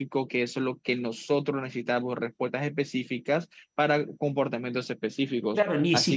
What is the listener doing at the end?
taking over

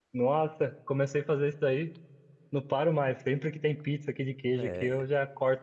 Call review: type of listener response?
listening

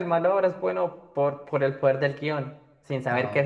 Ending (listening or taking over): listening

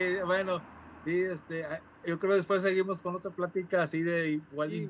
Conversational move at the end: taking over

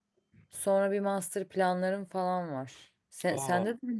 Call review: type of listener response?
listening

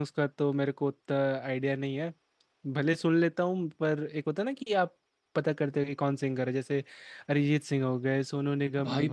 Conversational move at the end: taking over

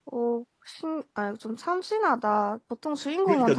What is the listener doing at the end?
taking over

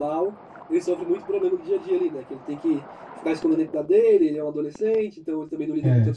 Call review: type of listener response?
listening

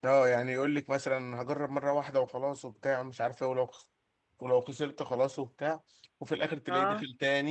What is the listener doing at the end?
listening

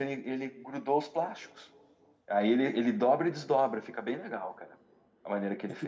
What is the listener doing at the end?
taking over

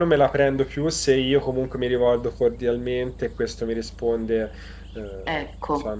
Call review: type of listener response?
listening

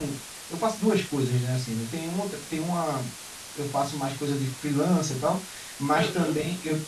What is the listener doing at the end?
listening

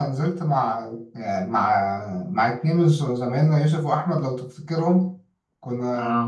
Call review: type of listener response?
listening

